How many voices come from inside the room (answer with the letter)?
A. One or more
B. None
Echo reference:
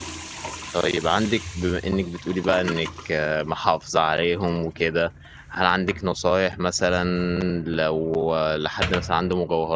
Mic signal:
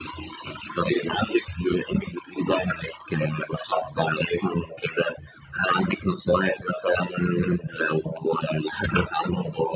B